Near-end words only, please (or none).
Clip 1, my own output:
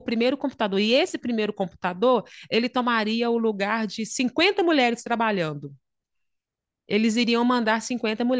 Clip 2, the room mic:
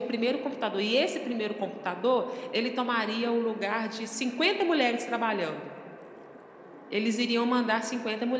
none